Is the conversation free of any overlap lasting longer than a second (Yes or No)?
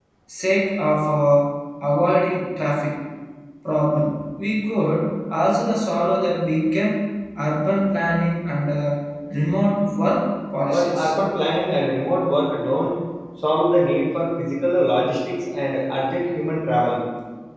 Yes